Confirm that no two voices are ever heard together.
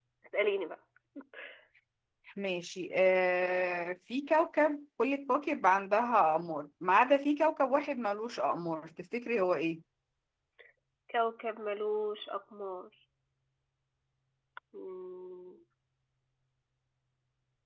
Yes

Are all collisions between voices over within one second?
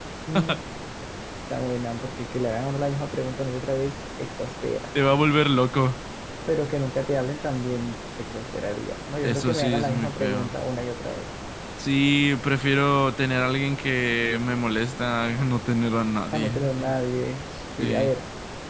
No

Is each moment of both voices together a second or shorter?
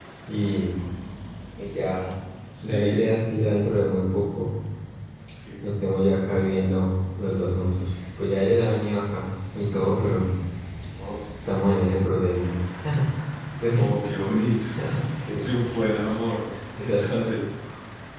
Yes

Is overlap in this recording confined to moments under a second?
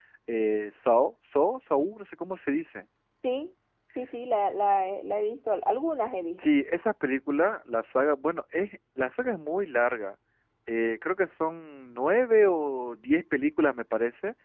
Yes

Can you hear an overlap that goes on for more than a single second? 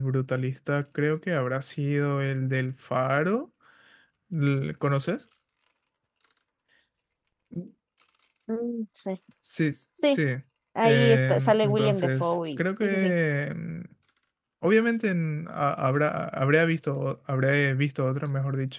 Yes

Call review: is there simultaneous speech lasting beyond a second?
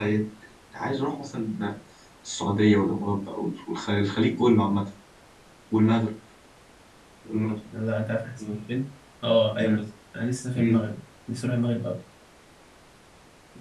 No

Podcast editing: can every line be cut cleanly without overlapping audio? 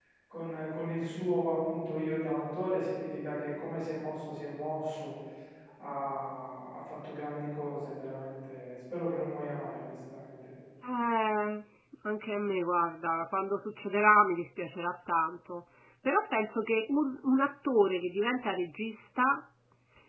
Yes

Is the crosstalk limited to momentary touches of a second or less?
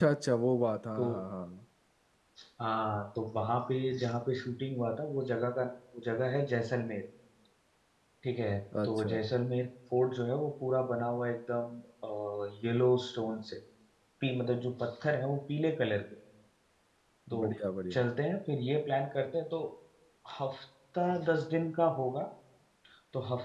Yes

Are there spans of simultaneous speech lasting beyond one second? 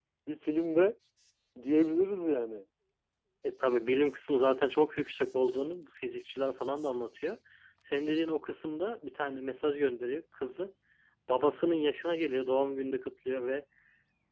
No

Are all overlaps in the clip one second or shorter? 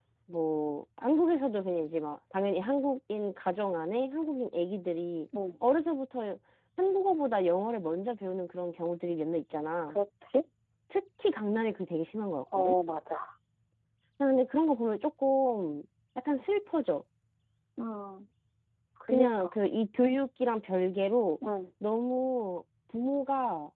Yes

